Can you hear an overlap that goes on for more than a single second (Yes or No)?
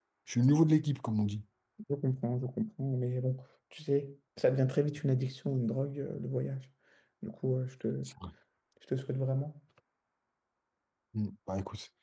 No